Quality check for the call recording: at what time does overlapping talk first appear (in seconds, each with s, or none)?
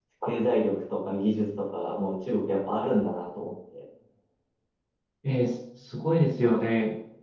none